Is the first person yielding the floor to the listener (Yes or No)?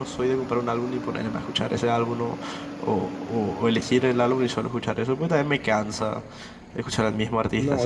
Yes